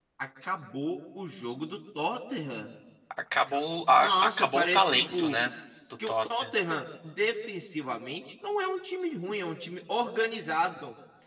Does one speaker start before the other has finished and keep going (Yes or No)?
Yes